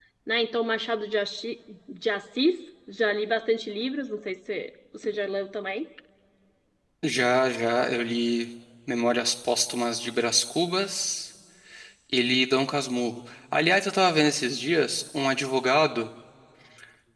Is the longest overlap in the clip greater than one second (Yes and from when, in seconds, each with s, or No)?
No